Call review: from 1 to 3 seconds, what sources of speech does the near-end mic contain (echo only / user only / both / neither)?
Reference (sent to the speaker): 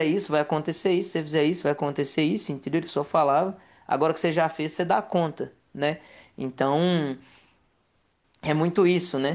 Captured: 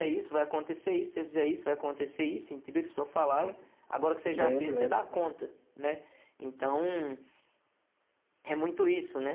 echo only